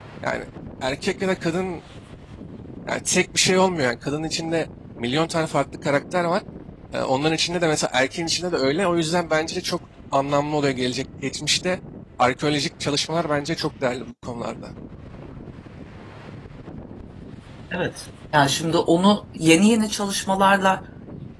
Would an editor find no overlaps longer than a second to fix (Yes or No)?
Yes